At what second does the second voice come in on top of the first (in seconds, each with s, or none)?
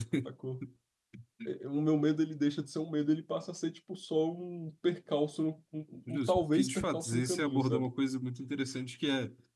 6.1 s